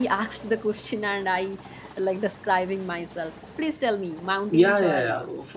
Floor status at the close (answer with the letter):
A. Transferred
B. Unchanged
A